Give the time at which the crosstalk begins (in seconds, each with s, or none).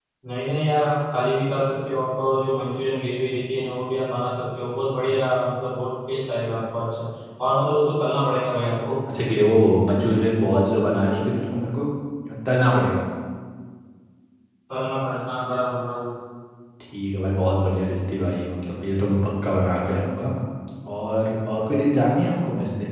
none